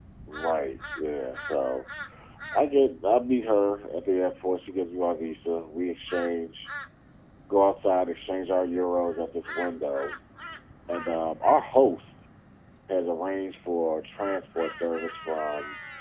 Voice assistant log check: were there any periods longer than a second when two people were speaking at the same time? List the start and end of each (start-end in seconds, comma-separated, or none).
none